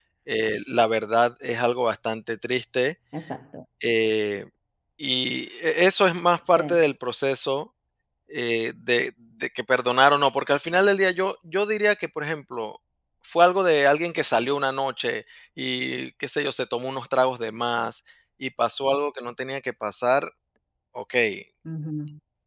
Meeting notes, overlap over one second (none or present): none